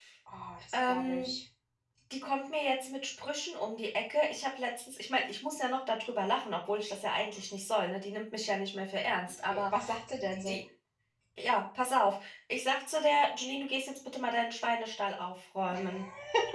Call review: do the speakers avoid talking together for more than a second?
Yes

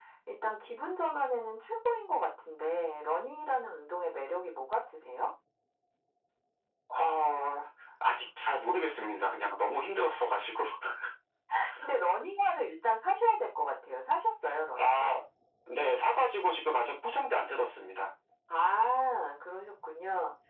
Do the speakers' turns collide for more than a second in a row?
No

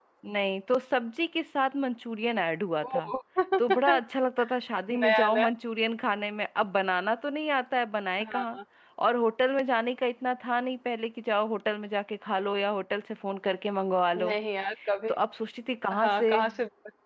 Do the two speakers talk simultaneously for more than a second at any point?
No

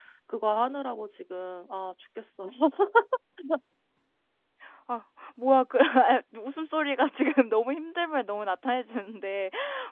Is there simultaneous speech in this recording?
No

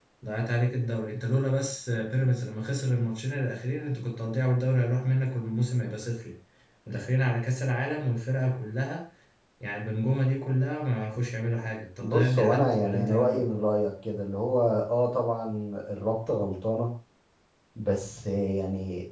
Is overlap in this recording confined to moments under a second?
No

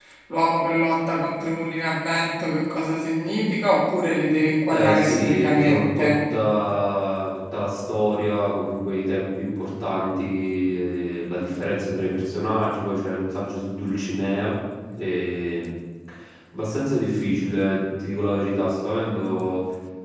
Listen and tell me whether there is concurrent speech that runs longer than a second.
Yes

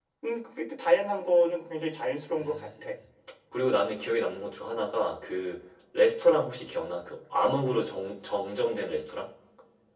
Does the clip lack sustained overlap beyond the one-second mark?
Yes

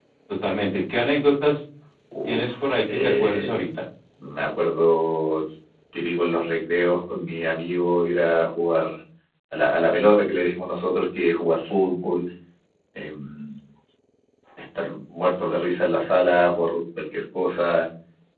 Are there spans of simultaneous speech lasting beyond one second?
Yes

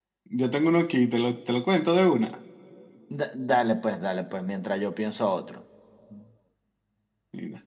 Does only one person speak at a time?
Yes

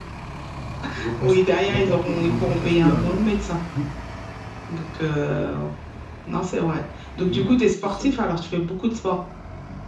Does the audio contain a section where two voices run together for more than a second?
Yes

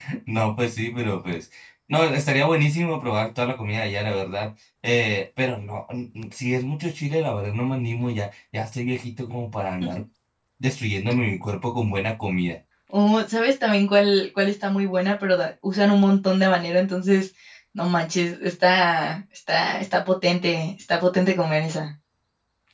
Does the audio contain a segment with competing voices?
No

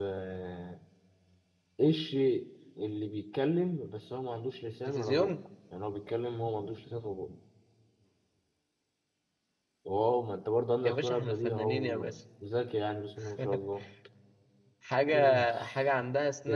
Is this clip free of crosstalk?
No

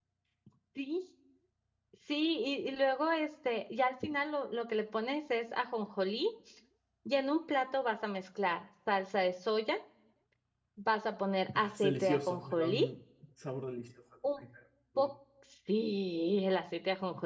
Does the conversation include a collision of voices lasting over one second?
Yes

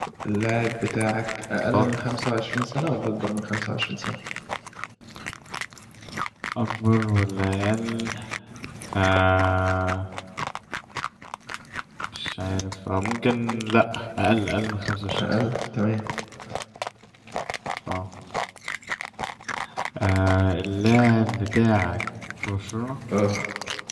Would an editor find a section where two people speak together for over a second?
No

